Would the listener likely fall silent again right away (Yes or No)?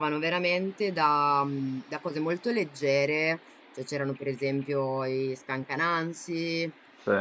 Yes